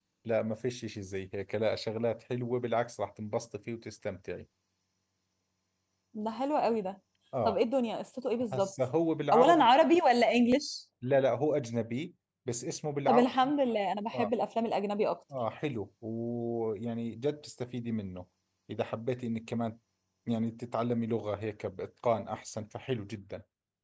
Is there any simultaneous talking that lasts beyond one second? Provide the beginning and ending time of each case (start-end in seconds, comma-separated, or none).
none